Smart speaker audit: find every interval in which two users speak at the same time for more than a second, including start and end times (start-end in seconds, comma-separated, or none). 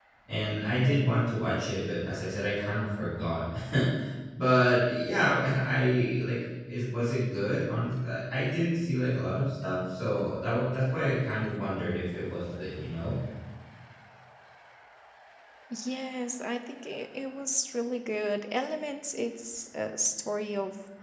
none